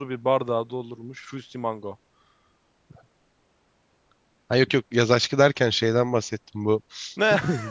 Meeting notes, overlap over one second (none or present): none